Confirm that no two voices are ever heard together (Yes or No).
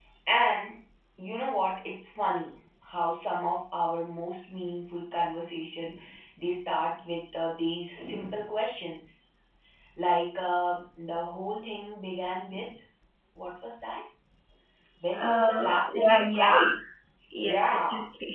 No